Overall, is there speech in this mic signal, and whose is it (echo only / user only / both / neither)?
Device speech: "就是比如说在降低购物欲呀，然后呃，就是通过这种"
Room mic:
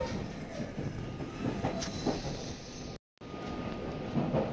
neither